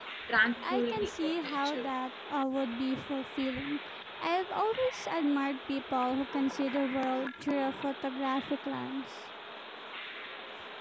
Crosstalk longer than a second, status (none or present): present